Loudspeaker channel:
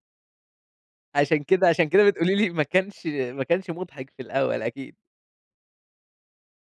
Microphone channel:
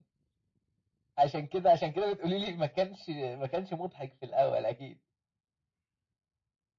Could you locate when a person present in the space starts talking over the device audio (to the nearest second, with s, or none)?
none